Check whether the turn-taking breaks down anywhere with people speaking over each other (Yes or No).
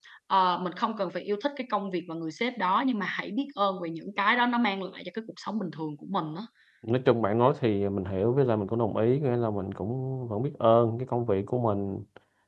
No